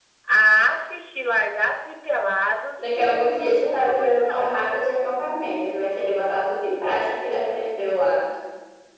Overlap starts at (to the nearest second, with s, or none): 3 s